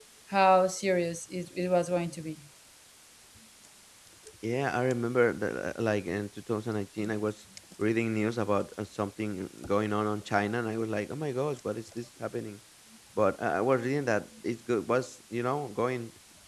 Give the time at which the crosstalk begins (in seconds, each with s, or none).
none